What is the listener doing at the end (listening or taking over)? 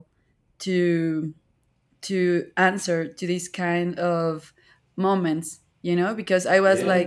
listening